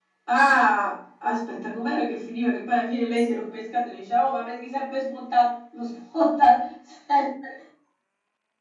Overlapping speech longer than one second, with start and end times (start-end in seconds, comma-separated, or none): none